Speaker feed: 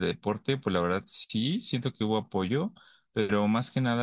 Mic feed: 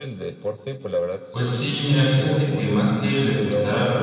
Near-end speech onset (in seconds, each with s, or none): 1.3 s